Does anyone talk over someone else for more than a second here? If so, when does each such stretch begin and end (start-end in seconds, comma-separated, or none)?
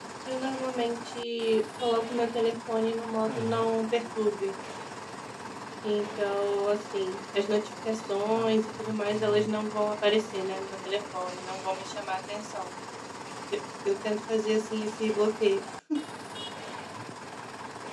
8.3-9.5